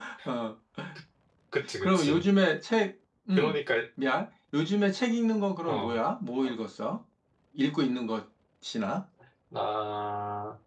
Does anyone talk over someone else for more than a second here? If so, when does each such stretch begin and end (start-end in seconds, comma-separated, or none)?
none